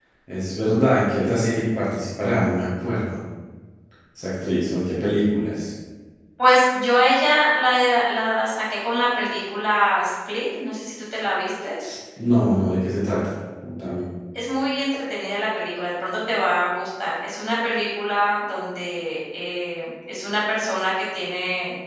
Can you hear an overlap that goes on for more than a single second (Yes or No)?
No